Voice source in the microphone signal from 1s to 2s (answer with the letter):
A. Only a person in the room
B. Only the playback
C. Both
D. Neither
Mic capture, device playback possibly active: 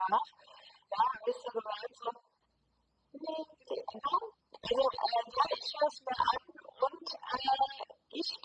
B